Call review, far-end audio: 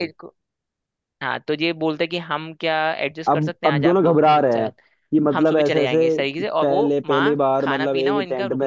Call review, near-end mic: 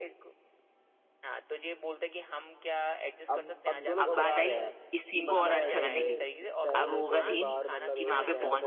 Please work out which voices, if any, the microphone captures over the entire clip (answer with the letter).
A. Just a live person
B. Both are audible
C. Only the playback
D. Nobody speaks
B